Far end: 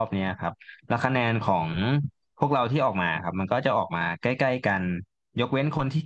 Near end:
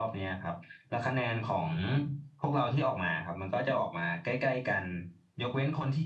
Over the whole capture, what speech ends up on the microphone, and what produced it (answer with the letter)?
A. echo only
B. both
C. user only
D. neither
A